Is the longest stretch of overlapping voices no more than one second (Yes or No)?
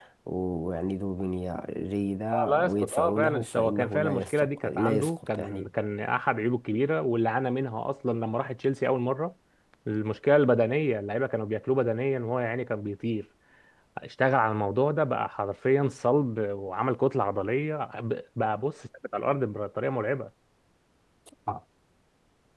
No